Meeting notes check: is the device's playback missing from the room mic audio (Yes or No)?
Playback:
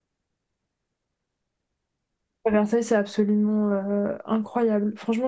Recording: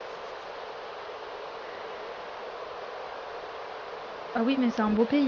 Yes